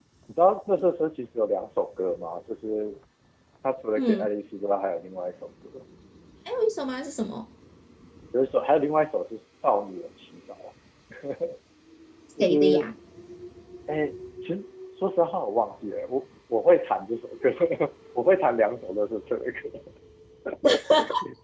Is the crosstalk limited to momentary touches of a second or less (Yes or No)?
Yes